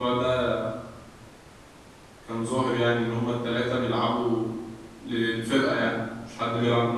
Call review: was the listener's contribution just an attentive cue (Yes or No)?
No